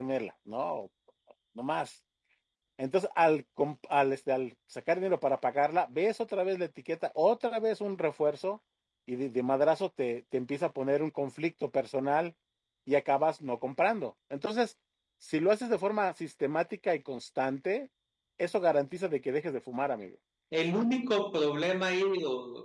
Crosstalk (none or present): none